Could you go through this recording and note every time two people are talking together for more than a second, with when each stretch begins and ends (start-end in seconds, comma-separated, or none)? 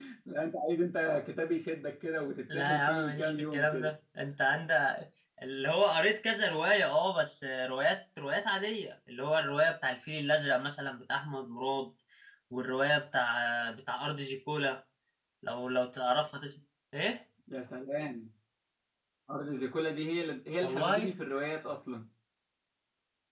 2.5-4.0